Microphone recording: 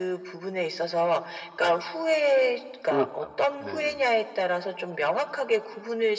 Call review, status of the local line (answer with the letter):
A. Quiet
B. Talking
B